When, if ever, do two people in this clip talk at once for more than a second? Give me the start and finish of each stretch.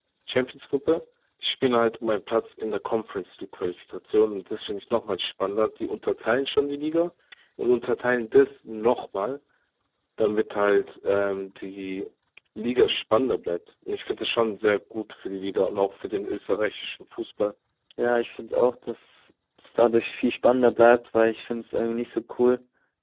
none

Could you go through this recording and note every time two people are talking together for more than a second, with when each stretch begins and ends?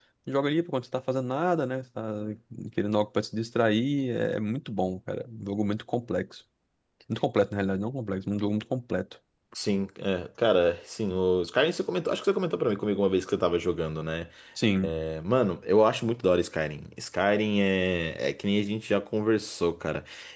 none

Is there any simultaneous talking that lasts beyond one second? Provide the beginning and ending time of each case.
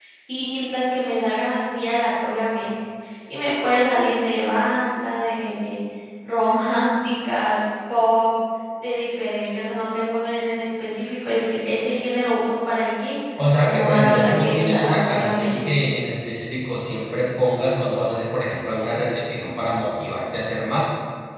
13.6-15.7

